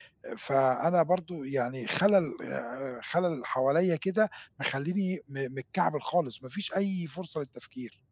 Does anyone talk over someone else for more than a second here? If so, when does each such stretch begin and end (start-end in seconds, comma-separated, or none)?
none